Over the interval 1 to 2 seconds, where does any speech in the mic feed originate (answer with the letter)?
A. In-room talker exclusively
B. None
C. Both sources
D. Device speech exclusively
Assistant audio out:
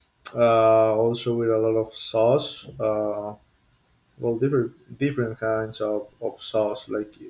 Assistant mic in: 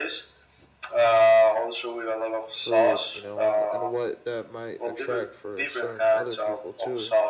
D